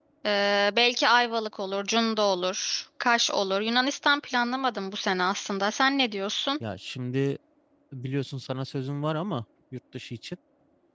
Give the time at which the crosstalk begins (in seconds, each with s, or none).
none